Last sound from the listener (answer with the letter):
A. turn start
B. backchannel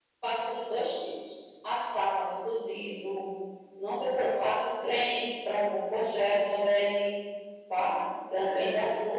B